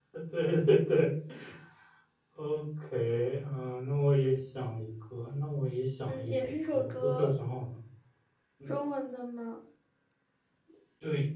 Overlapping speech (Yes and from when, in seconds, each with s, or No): Yes, from 6.1 s